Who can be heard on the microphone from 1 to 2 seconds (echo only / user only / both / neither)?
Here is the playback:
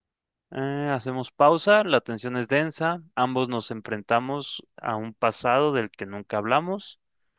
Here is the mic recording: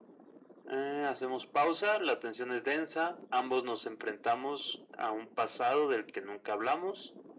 echo only